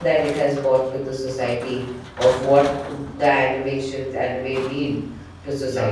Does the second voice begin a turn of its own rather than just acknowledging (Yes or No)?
Yes